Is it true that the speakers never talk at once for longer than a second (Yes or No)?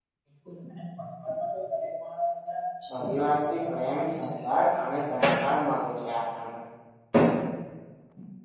No